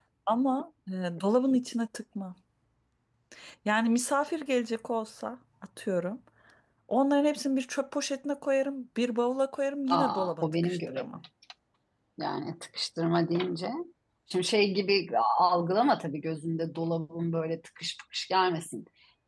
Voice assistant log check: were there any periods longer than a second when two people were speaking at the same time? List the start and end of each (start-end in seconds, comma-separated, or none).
9.9-11.2